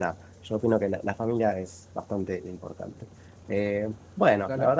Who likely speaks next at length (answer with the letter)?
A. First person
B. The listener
A